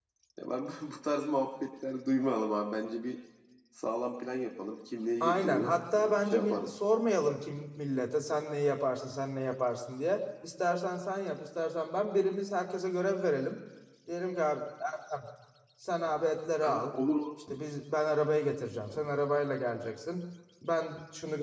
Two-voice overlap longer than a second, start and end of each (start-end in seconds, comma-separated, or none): 5.2-6.8